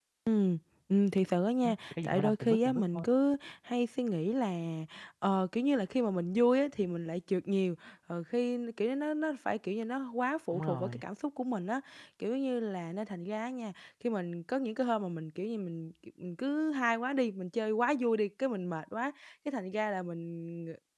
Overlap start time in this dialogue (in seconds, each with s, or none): 1.6 s